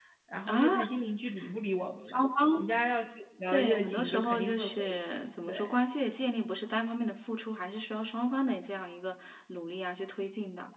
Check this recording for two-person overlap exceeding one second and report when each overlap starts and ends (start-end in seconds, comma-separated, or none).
3.5-5.0